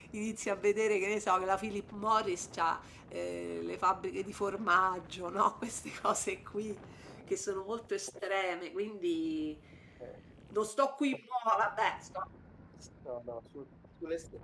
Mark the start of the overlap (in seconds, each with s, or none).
none